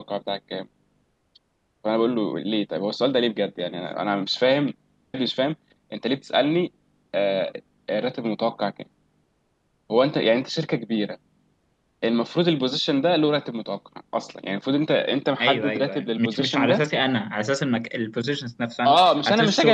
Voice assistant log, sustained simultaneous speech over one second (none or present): present